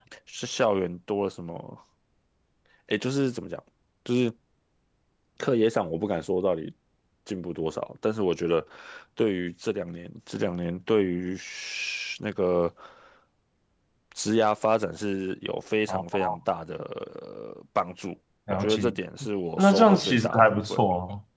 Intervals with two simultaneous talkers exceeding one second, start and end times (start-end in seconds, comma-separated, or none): 19.6-20.8